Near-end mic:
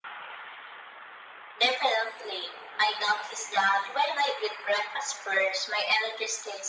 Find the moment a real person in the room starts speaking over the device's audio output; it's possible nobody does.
none

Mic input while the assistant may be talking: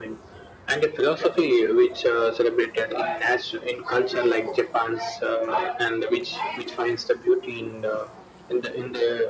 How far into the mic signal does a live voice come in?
none

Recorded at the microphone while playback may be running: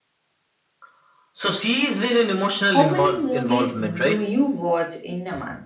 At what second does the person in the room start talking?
2.6 s

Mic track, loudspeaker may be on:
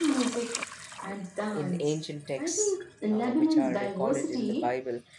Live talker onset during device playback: 1.5 s

